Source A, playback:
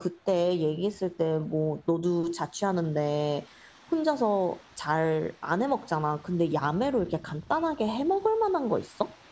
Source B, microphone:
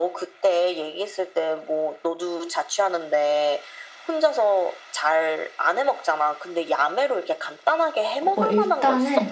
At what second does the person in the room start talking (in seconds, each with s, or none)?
8.2 s